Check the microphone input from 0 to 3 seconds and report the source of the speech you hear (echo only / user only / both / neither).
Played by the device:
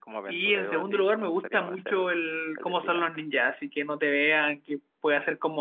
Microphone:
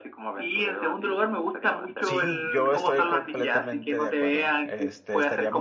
both